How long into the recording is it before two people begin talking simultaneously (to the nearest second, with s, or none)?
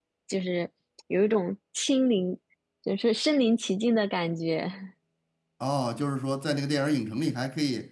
none